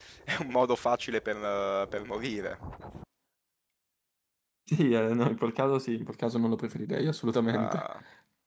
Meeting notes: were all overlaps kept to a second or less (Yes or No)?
Yes